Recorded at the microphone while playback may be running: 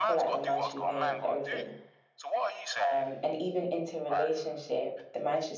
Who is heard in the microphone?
both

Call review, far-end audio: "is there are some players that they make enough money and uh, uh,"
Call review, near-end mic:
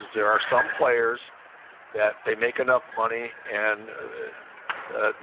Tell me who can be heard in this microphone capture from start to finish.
echo only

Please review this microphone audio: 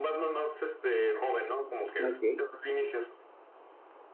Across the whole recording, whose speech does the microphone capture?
both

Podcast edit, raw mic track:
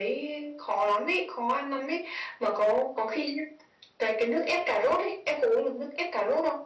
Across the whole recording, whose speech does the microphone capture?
echo only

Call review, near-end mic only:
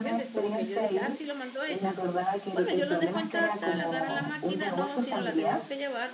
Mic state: both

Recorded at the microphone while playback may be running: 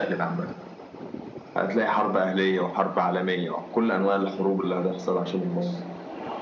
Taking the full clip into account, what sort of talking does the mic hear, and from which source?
echo only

